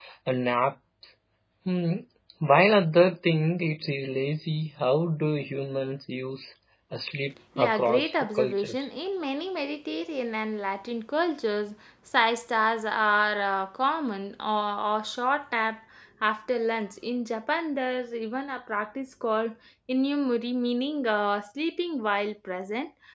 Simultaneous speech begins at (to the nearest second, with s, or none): 8 s